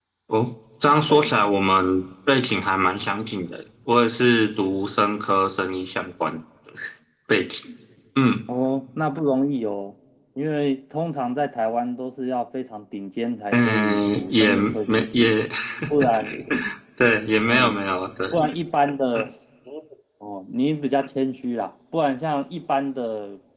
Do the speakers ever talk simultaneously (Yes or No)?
Yes